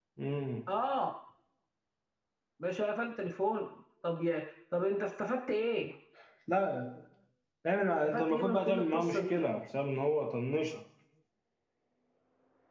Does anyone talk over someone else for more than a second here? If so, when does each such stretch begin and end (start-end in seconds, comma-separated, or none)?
8.0-9.3